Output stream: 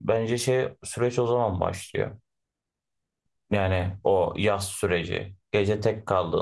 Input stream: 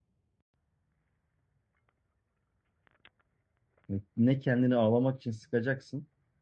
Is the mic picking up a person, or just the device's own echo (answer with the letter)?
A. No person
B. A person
B